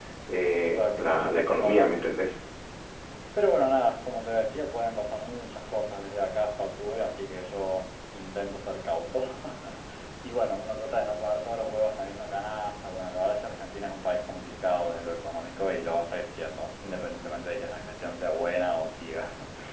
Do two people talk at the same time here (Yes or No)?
Yes